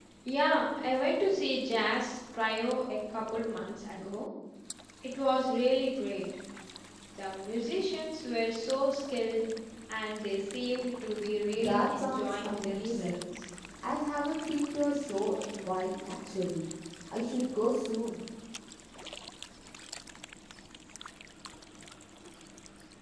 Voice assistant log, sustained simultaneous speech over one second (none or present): present